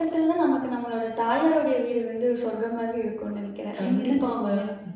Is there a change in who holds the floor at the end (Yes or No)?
Yes